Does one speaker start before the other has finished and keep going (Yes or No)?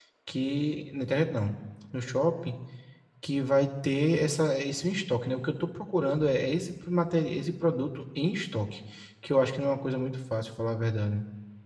No